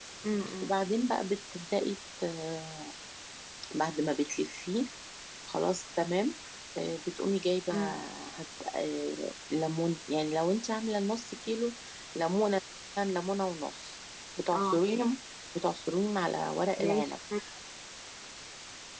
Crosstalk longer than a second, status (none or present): none